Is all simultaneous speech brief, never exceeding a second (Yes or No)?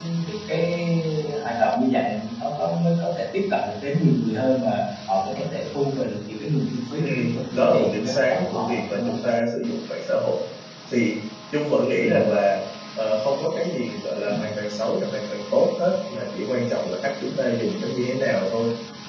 No